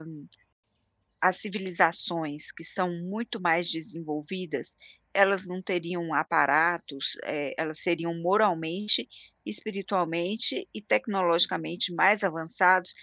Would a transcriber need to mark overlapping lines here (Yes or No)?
No